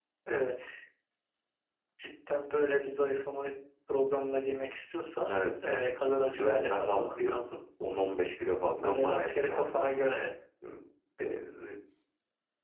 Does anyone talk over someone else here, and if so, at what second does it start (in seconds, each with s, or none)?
5.2 s